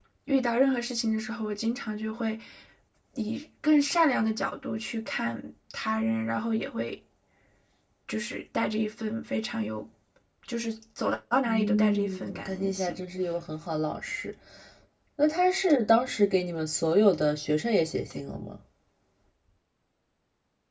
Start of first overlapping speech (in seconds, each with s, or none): 11.4 s